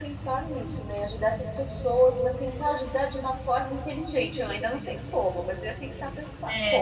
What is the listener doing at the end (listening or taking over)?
taking over